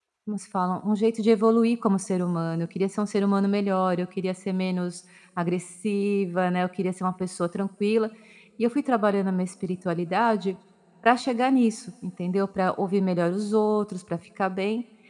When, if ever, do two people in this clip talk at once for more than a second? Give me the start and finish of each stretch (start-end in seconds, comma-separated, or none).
none